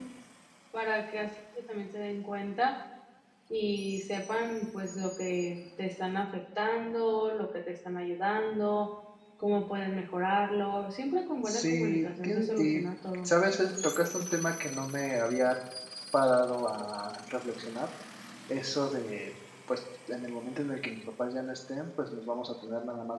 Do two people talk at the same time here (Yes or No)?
Yes